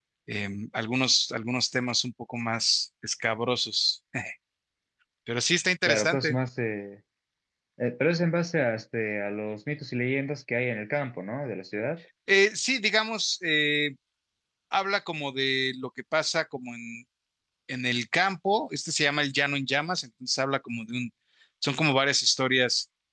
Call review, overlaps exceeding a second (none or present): none